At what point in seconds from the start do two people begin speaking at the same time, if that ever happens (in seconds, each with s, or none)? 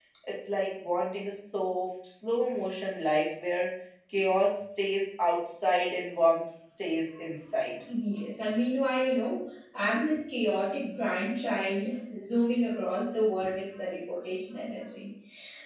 none